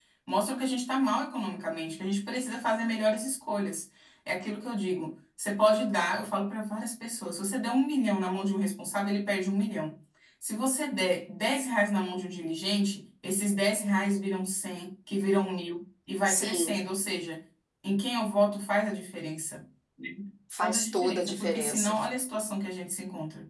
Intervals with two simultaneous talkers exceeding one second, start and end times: 20.6-21.9

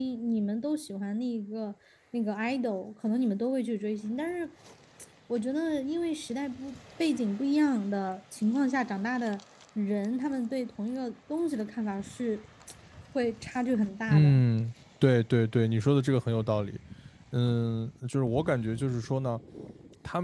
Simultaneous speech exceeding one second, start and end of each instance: none

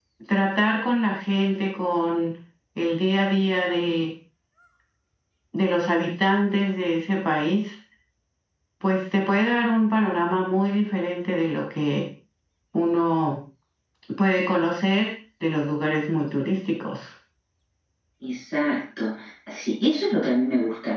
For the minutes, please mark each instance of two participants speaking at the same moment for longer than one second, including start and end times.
none

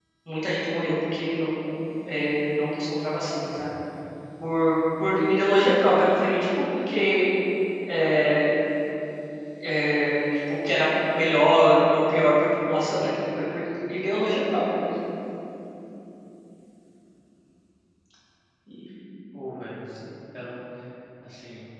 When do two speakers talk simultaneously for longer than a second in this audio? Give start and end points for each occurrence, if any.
none

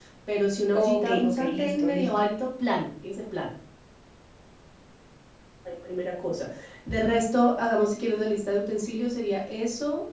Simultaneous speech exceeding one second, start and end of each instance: 0.7-2.2

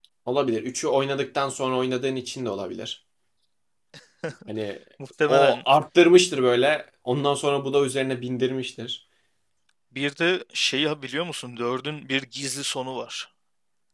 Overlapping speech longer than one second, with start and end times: none

